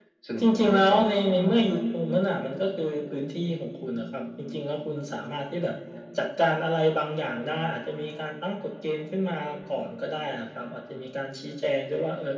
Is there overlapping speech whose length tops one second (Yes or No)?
Yes